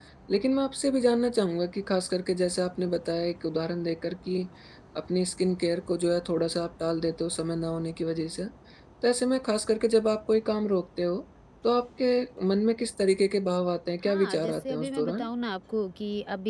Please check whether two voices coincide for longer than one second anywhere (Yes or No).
Yes